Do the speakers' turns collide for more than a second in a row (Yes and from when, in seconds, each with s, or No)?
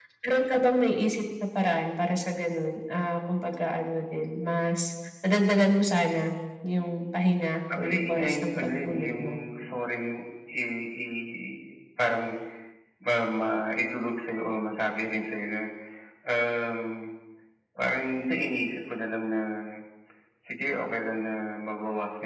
Yes, from 7.7 s